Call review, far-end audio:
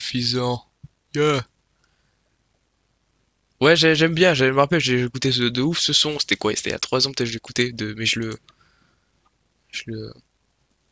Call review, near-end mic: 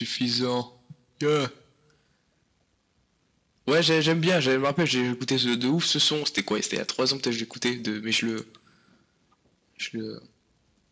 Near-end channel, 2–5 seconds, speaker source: echo only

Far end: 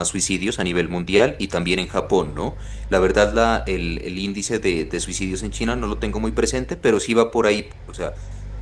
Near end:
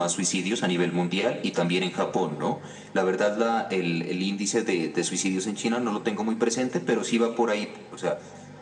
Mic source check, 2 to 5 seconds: echo only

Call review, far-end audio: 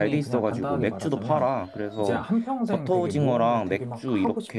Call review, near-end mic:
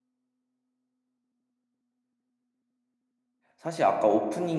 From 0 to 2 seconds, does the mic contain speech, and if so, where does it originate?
neither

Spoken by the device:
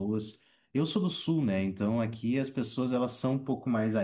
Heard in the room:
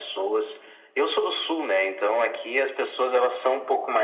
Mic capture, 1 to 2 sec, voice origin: echo only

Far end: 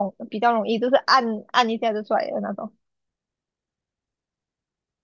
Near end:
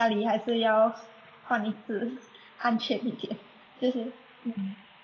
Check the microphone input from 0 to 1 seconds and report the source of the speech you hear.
user only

